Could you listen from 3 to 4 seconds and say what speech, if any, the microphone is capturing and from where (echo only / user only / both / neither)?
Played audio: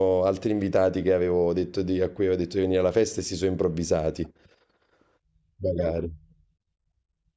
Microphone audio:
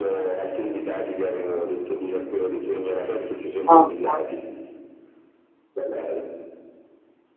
both